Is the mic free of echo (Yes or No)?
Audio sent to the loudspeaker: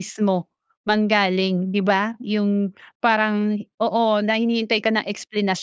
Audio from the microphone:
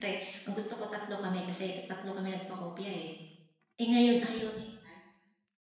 Yes